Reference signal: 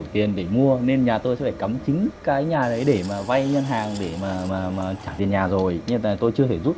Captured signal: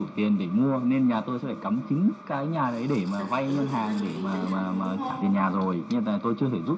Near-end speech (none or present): present